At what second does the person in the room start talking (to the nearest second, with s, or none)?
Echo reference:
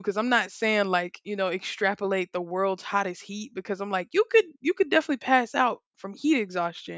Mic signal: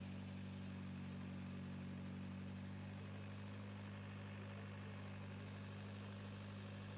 none